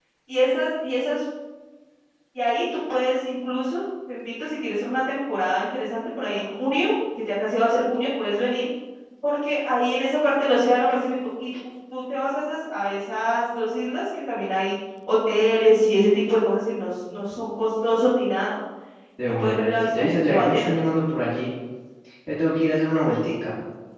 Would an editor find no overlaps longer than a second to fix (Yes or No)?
No